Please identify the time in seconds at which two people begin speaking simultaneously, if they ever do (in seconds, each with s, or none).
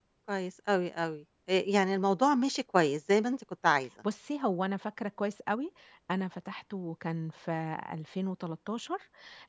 none